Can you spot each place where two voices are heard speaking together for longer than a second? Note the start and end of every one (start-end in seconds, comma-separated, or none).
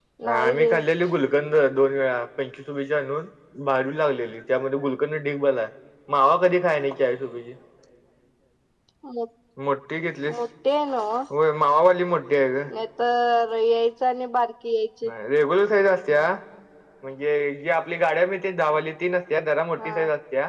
none